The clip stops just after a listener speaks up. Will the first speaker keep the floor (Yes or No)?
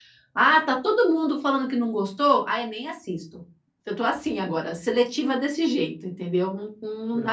No